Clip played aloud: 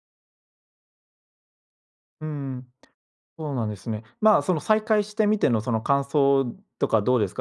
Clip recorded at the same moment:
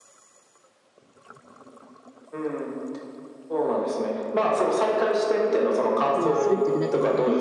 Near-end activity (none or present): present